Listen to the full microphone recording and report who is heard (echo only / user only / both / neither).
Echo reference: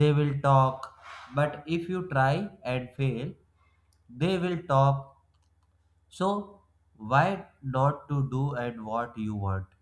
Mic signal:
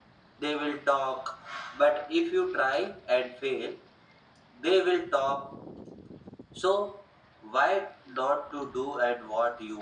echo only